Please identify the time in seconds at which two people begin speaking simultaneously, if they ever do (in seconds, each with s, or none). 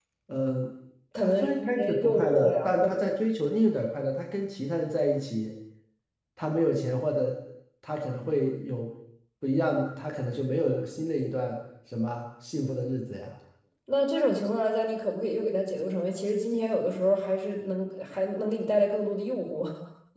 1.2 s